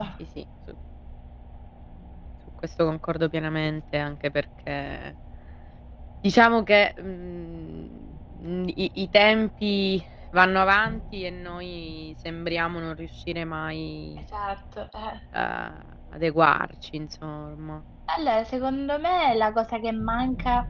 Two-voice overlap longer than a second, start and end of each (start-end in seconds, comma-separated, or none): none